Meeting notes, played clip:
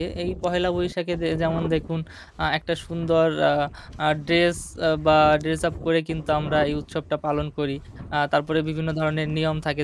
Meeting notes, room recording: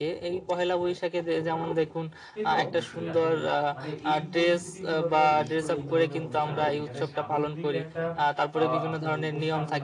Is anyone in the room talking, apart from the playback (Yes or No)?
Yes